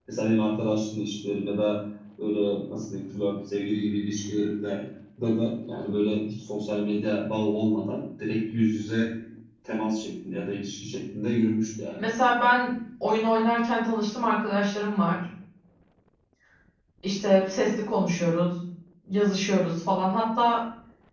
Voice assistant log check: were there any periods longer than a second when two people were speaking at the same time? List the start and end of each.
none

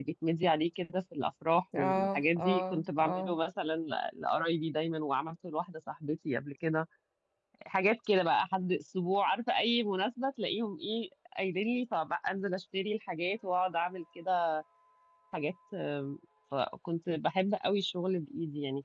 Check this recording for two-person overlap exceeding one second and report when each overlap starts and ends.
1.7-3.4

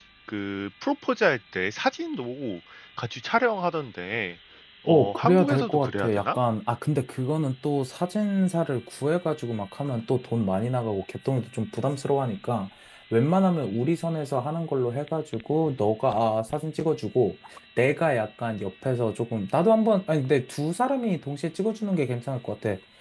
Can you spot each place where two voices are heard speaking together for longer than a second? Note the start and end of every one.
4.9-6.4

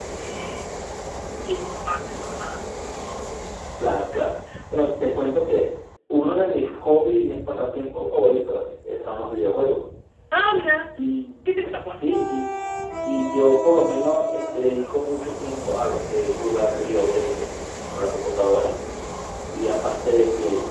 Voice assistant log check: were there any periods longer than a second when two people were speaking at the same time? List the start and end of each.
none

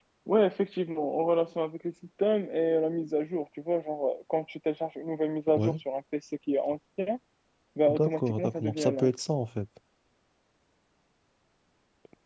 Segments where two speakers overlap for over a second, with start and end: 7.9-9.1

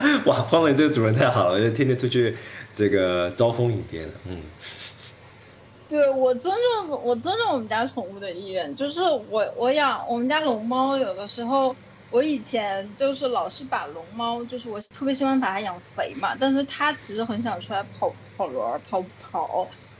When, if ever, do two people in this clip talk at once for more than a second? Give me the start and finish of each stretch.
none

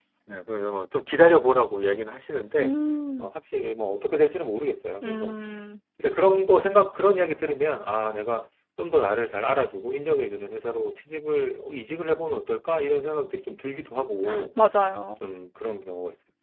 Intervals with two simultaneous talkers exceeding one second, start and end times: none

